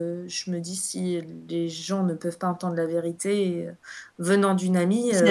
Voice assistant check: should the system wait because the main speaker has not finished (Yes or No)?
No